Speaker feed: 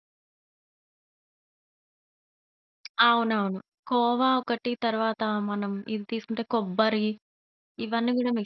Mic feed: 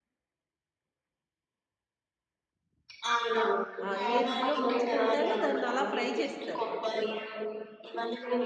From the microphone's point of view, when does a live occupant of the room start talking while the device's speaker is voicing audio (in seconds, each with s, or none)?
3.9 s